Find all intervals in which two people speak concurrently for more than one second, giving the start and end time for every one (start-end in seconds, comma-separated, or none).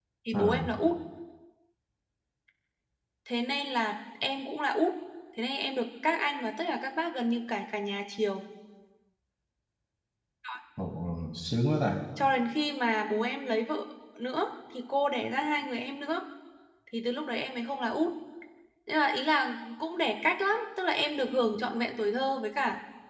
none